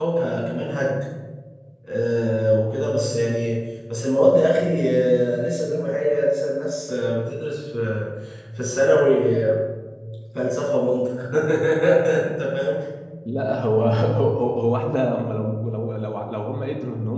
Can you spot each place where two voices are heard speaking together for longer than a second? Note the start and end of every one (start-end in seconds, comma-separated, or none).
none